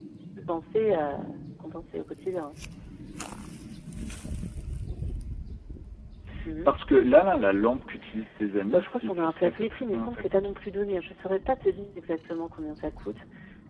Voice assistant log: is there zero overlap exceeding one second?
No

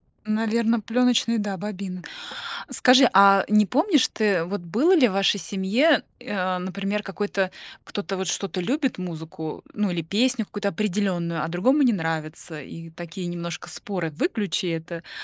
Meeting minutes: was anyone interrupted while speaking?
No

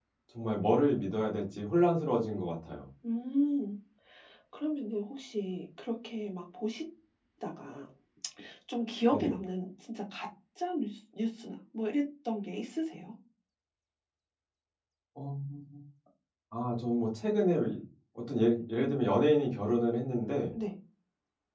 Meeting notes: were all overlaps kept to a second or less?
Yes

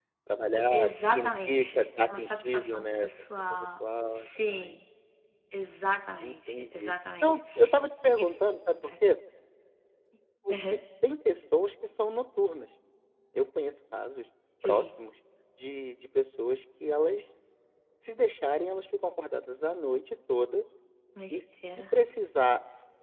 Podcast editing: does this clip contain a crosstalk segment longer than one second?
Yes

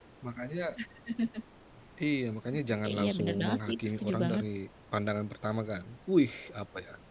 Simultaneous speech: Yes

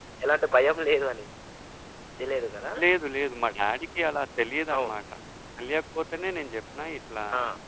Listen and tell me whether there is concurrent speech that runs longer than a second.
No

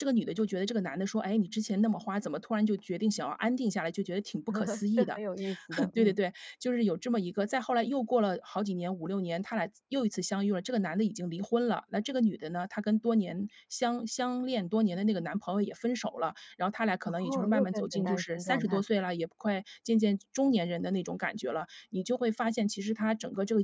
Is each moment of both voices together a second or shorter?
No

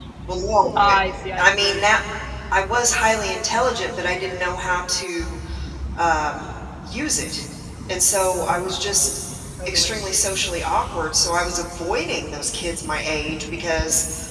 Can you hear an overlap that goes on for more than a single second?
No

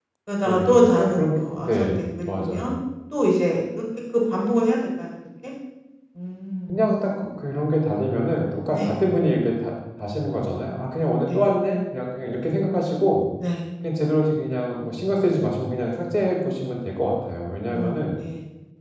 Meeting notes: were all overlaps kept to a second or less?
No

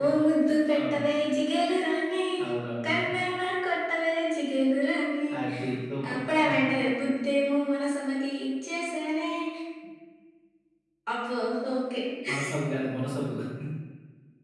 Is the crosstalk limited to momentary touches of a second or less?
Yes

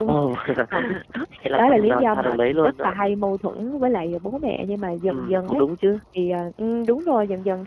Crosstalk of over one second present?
Yes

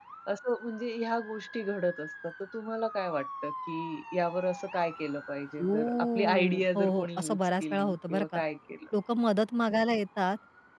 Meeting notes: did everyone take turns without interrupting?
No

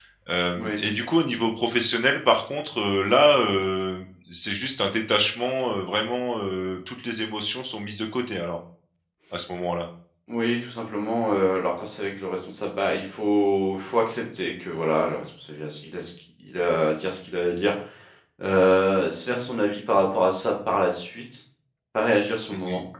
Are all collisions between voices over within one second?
Yes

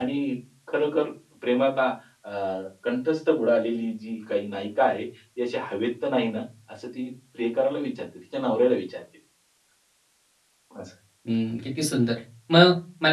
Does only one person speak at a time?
Yes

